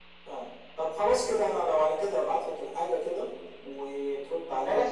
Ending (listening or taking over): taking over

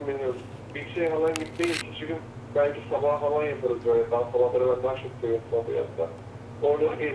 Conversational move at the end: taking over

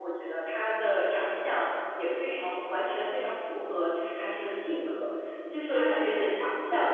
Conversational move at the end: listening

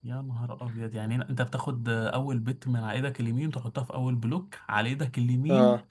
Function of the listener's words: taking over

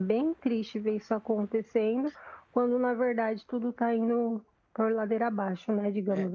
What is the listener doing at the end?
taking over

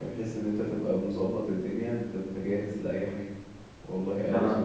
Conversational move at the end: listening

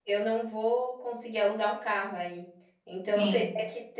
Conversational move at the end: listening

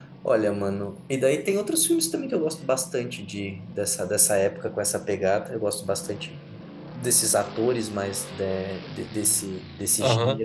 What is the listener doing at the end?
taking over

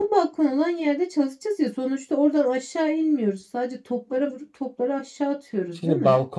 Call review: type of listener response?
taking over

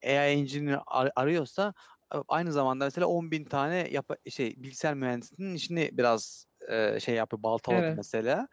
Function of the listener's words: listening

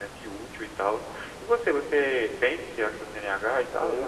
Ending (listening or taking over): taking over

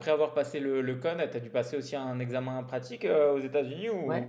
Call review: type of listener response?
taking over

